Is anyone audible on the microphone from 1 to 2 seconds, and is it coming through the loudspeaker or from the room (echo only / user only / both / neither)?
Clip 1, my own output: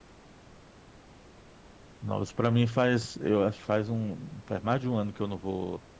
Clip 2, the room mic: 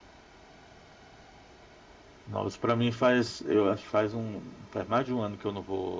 neither